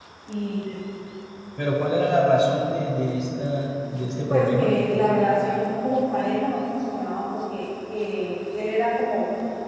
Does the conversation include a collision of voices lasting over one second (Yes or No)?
No